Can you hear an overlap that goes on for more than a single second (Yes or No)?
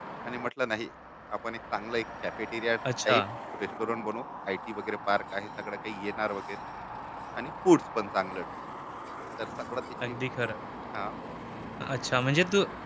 No